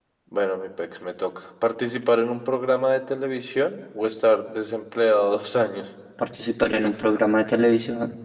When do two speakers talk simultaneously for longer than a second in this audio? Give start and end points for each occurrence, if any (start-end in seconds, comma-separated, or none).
none